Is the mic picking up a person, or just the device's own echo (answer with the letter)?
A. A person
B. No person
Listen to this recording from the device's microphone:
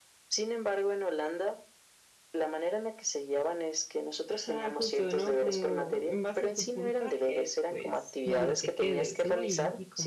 A